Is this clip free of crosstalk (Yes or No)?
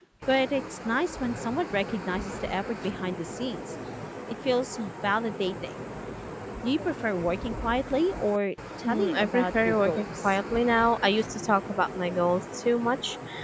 No